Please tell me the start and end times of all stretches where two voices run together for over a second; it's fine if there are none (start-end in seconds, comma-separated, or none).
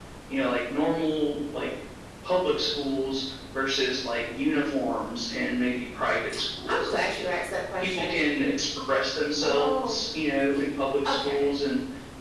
none